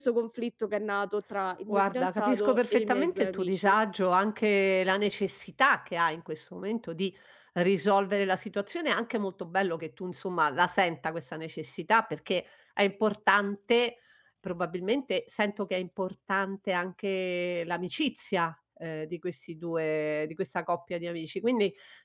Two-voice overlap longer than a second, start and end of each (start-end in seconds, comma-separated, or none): 1.7-3.8